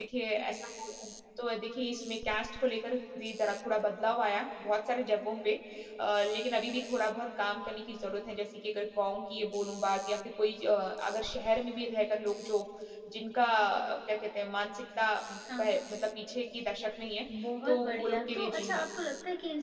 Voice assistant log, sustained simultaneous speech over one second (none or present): present